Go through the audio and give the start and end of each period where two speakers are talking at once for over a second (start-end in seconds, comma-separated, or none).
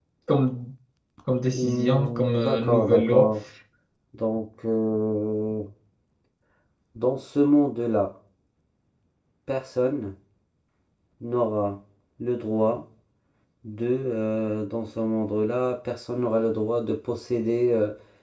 1.5-3.3